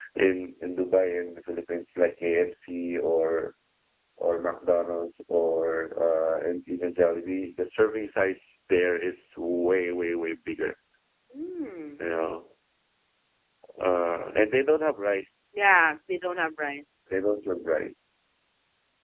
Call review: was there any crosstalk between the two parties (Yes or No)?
No